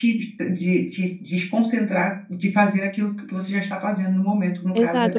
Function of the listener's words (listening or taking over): taking over